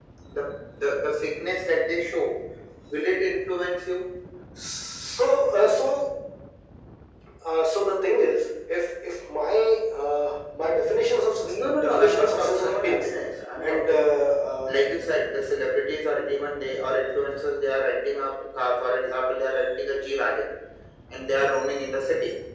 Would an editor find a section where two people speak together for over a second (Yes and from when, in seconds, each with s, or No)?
Yes, from 11.4 s